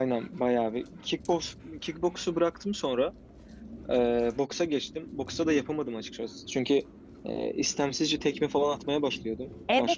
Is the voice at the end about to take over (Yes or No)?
Yes